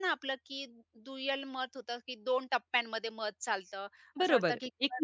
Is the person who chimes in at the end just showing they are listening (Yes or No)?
No